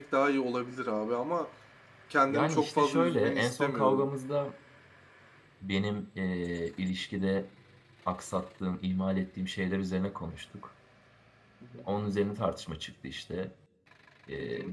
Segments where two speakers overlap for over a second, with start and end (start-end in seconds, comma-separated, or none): 2.3-4.1